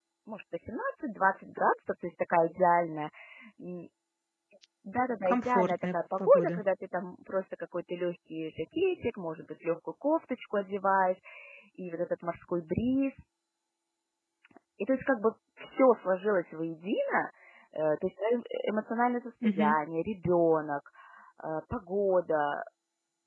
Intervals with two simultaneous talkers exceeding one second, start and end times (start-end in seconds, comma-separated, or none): 5.2-6.6